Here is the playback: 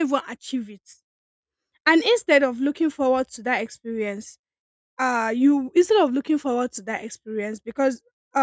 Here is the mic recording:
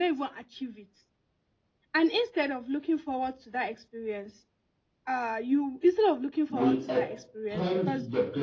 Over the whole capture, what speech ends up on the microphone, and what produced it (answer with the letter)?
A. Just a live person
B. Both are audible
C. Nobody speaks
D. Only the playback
B